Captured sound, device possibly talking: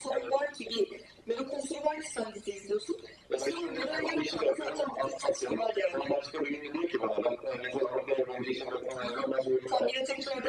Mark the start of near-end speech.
none

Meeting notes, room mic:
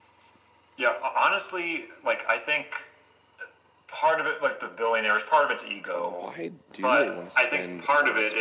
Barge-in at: 5.9 s

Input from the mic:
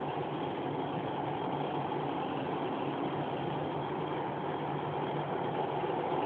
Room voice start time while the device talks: none

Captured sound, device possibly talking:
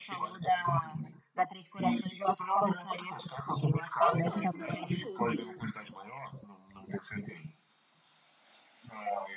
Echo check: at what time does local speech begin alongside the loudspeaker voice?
4.0 s

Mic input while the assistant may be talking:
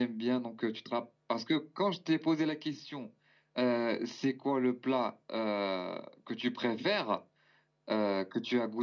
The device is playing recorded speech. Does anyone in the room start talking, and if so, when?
none

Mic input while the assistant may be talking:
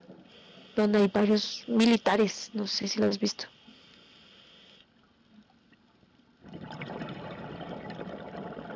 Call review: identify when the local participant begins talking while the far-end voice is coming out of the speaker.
0.7 s

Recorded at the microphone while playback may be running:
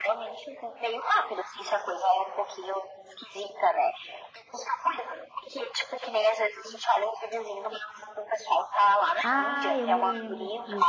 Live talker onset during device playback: 9.2 s

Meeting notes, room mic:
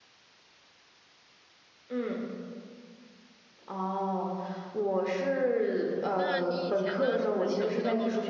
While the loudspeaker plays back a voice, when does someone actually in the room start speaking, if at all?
6.1 s

